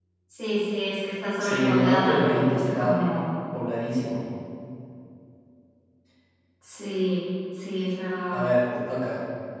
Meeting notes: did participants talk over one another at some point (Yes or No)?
Yes